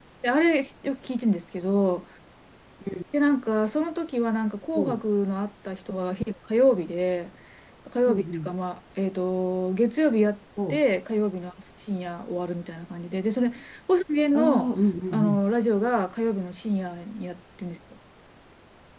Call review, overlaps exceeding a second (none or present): none